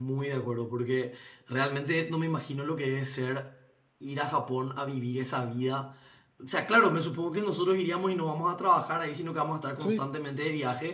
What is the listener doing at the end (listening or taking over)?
listening